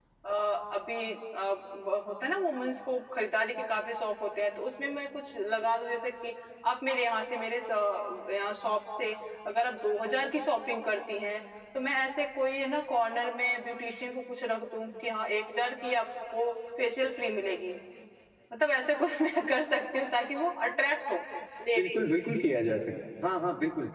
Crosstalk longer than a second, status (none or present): none